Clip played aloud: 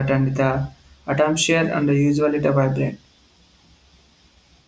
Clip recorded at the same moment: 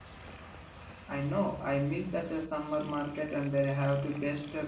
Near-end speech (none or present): present